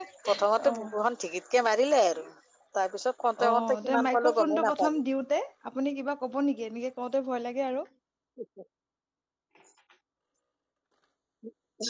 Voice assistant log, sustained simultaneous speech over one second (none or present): present